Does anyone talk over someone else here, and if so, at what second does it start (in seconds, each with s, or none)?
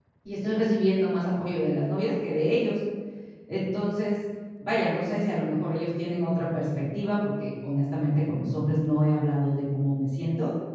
none